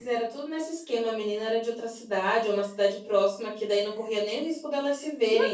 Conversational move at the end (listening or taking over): taking over